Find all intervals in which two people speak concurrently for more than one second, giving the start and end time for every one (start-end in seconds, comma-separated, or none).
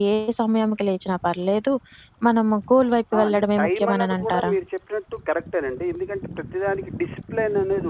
3.2-4.5